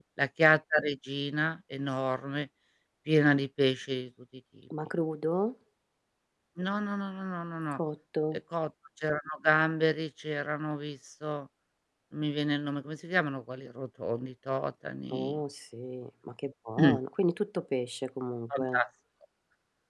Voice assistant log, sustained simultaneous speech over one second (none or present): none